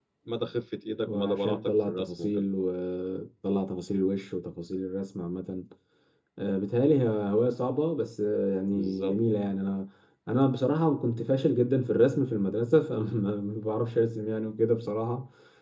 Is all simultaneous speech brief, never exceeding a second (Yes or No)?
No